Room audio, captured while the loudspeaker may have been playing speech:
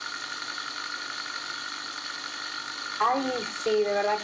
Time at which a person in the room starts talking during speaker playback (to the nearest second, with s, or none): 3 s